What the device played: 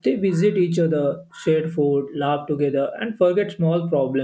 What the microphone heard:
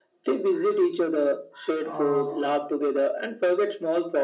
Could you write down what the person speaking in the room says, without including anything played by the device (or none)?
uh,